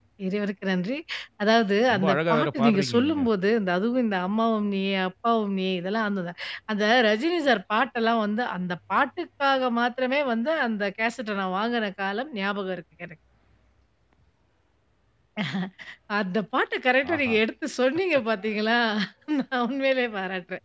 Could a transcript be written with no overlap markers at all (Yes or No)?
No